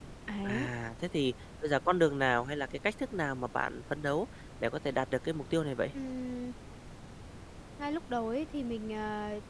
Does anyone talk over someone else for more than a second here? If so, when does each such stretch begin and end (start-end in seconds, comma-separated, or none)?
none